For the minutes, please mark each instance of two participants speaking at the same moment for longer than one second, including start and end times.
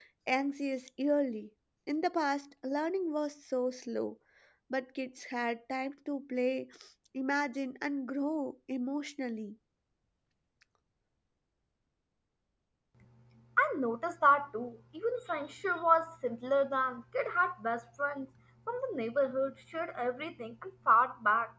none

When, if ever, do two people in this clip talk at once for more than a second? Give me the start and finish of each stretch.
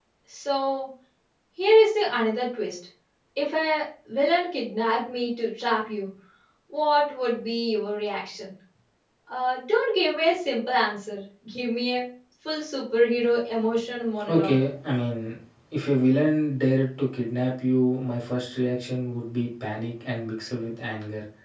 none

